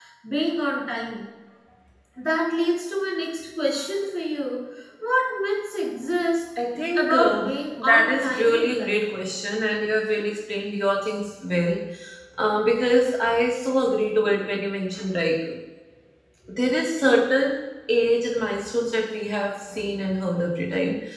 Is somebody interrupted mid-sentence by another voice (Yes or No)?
Yes